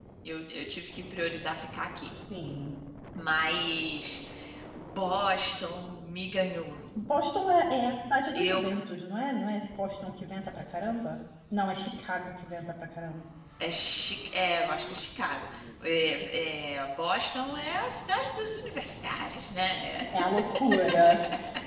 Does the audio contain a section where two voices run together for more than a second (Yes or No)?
No